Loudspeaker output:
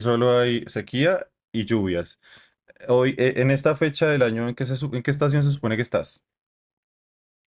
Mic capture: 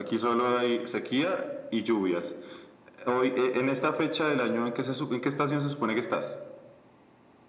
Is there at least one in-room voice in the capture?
No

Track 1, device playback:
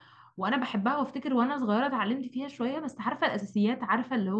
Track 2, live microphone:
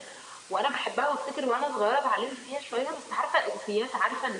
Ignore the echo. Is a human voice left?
No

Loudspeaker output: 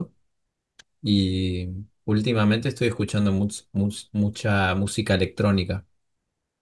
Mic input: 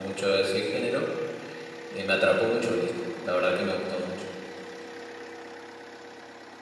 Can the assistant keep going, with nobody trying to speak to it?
No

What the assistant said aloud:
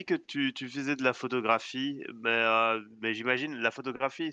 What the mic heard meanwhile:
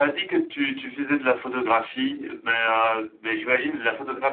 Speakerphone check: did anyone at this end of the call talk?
No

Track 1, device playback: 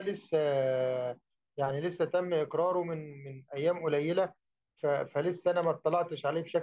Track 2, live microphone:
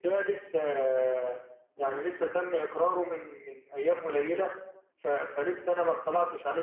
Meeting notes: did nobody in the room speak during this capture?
No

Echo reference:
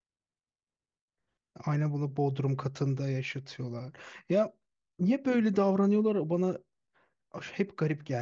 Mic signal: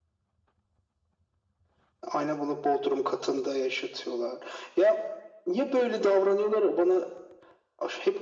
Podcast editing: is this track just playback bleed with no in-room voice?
Yes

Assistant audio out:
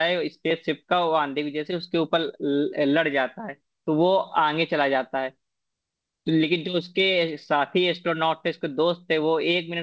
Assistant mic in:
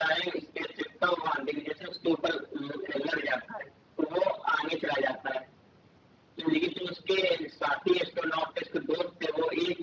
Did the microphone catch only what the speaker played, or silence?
Yes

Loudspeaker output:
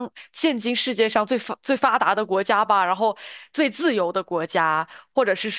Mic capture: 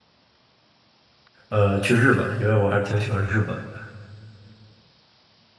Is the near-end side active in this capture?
Yes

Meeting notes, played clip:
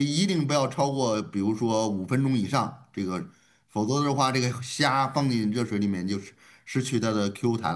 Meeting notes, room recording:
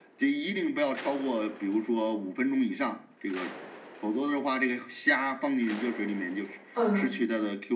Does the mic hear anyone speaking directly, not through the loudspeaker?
Yes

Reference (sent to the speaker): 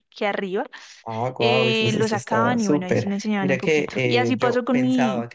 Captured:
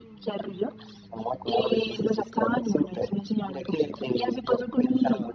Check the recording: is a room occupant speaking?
No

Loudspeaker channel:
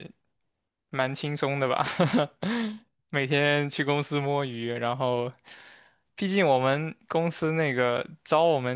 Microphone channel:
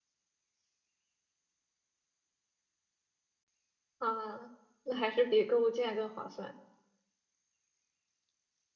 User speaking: Yes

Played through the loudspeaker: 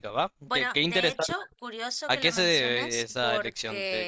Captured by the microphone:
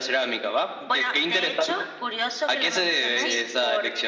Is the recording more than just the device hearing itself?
Yes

